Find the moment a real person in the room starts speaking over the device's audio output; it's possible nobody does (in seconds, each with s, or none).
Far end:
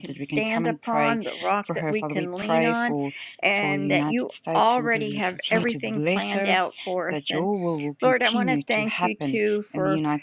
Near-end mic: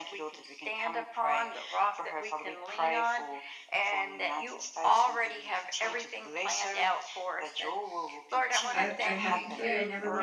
8.7 s